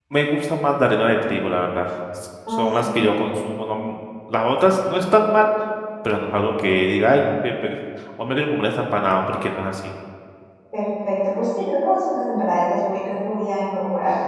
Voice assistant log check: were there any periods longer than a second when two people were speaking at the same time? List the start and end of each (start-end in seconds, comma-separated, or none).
none